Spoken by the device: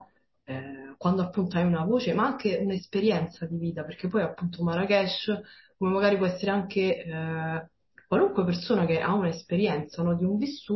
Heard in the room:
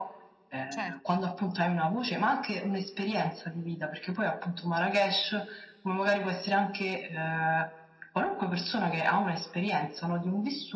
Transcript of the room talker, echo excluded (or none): certo,